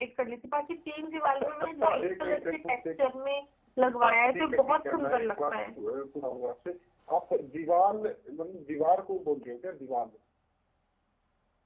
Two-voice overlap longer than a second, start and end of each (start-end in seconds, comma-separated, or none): 1.3-2.8, 4.0-5.5